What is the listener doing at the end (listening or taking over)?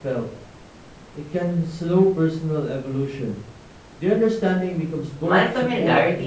taking over